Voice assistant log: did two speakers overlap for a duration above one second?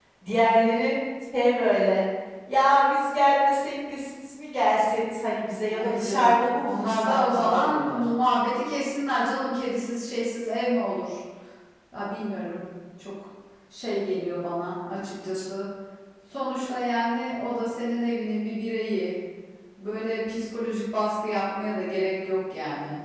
Yes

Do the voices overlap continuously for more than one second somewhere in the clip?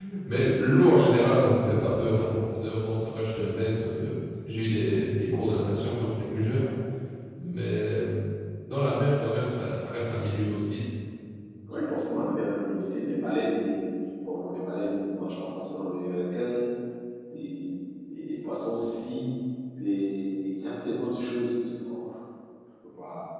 No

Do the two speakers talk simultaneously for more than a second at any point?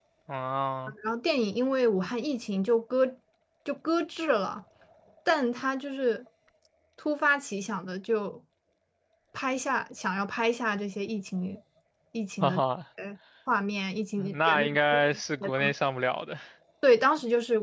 Yes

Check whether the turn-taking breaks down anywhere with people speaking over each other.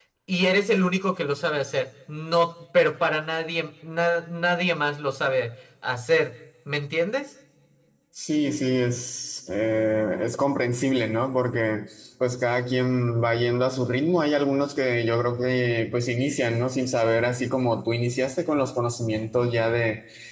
No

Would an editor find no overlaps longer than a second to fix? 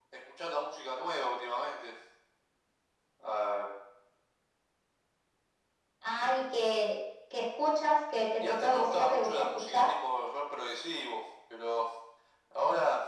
No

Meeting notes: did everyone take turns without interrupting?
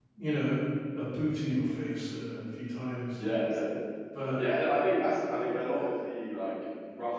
Yes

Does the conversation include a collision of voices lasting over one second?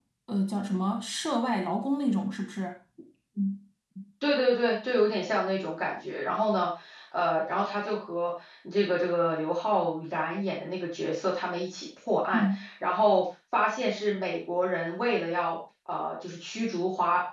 No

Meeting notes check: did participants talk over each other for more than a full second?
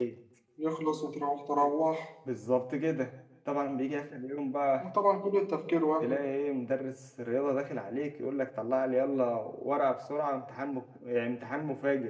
No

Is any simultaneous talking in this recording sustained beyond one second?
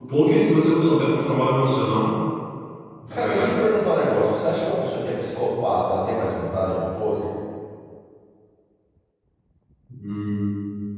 No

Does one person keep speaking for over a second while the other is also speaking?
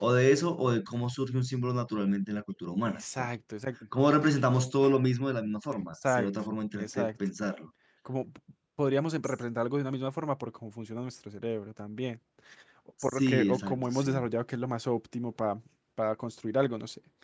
Yes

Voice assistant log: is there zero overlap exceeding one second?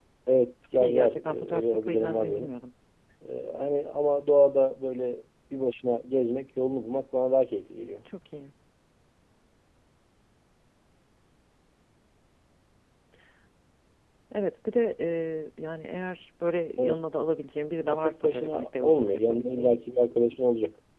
No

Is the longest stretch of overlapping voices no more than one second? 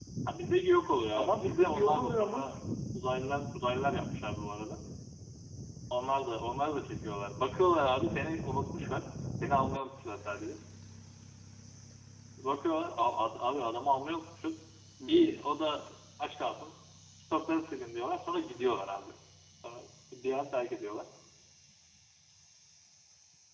No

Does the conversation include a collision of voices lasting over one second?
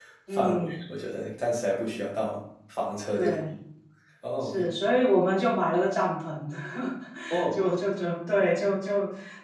No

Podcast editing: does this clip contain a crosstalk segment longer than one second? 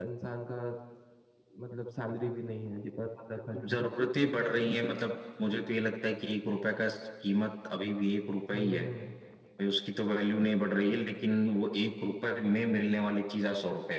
No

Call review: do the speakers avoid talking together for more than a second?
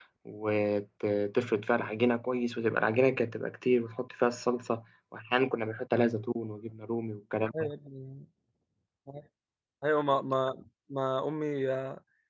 Yes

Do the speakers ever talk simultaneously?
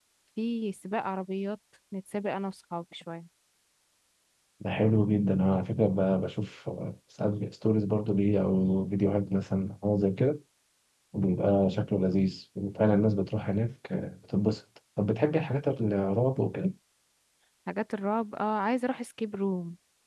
No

